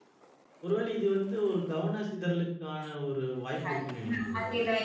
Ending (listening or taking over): taking over